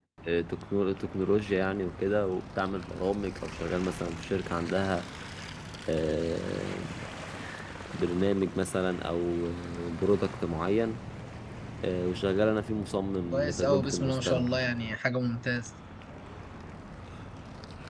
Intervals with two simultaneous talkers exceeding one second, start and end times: 13.3-14.6

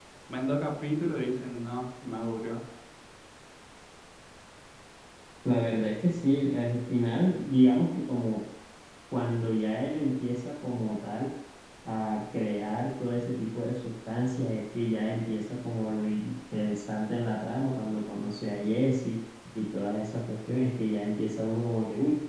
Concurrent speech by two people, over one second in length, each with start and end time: none

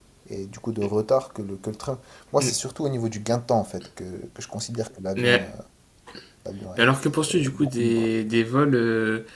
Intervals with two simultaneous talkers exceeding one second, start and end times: 6.8-8.1

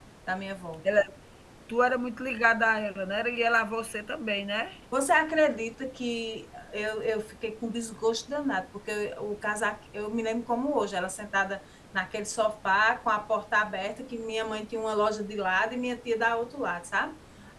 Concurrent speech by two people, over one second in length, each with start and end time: none

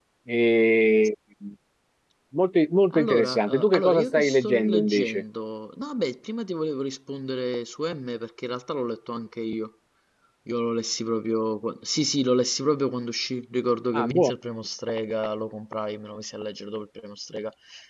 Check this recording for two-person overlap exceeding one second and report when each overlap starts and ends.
2.9-5.2

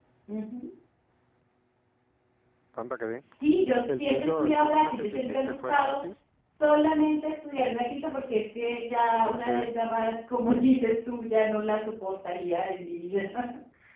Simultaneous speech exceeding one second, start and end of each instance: 4.0-6.0

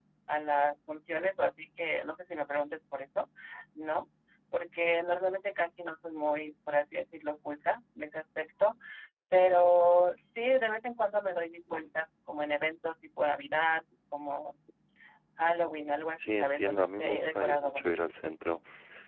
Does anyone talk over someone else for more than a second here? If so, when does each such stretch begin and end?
16.2-17.9

